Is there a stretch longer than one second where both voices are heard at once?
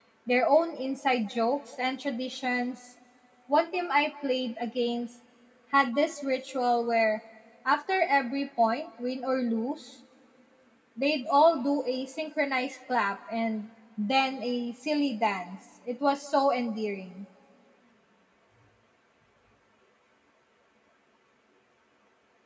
No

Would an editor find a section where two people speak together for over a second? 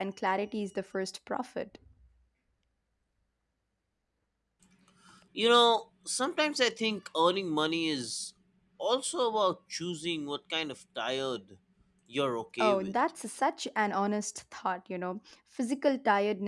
No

